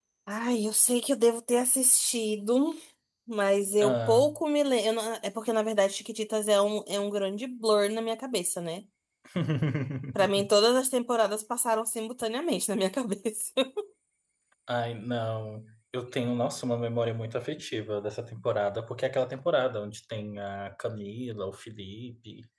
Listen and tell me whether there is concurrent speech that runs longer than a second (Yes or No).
No